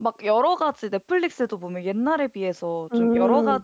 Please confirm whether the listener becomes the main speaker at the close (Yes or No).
No